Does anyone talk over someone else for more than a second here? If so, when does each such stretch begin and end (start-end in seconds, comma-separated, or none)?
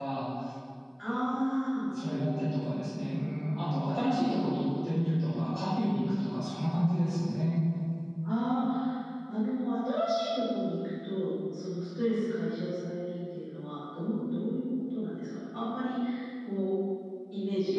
none